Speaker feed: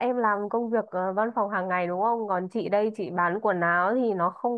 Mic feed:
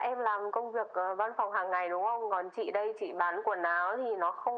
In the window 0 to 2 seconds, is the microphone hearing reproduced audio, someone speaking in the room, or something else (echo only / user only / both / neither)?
echo only